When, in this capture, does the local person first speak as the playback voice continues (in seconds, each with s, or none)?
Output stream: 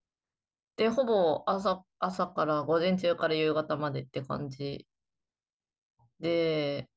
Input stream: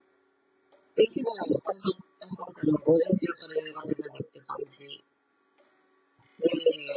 none